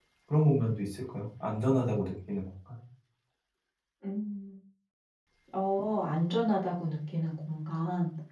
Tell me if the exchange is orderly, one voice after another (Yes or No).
Yes